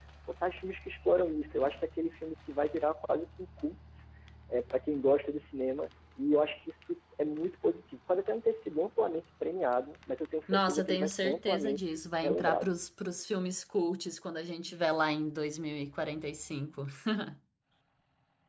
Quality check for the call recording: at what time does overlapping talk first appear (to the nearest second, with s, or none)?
10 s